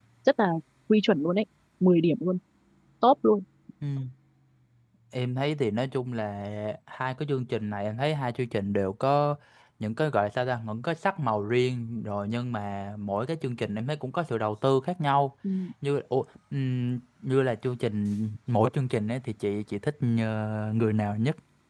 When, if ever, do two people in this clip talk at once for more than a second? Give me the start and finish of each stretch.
none

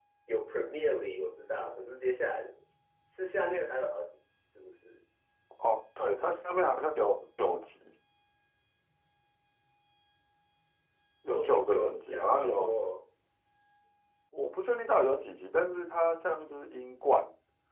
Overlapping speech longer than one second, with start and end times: 11.3-12.8

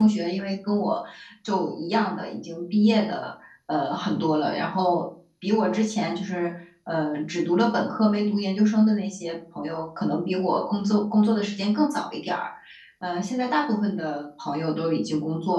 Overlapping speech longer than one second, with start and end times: none

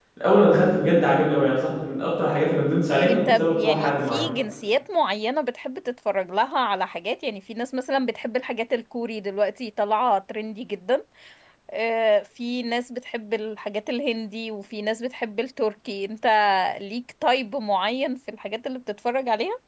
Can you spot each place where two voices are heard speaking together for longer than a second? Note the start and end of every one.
2.9-4.2

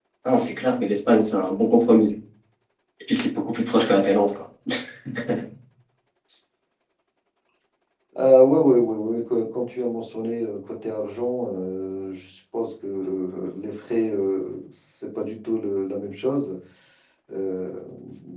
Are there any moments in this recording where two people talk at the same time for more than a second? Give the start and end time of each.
none

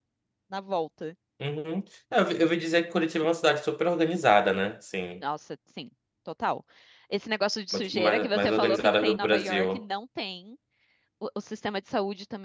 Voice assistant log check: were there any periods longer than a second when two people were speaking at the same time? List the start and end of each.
7.7-9.8

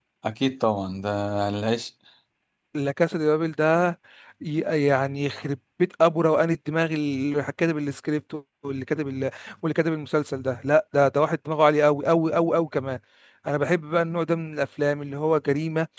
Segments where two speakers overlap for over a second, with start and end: none

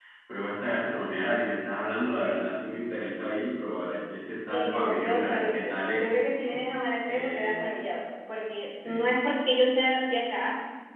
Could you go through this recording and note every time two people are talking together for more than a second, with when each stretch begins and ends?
4.5-6.0

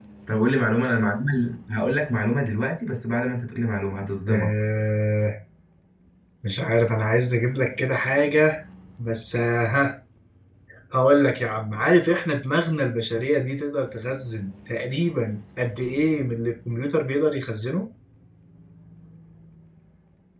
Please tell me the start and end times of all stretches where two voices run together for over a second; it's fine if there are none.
none

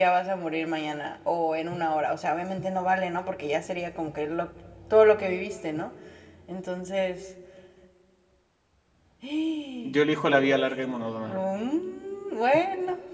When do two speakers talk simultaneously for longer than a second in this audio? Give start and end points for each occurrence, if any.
9.8-11.4

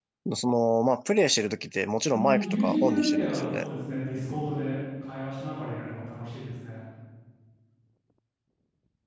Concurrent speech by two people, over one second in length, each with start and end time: 2.1-3.6

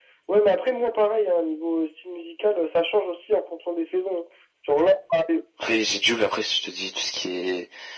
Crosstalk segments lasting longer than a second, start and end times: none

